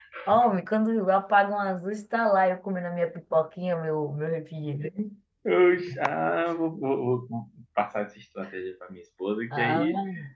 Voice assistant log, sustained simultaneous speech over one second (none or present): none